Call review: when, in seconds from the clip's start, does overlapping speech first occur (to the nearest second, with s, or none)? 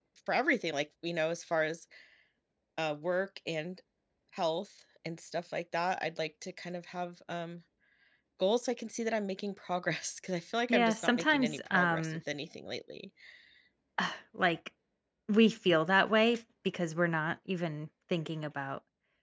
11 s